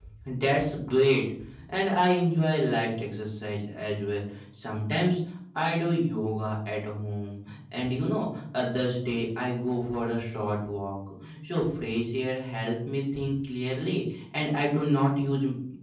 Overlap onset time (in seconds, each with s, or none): none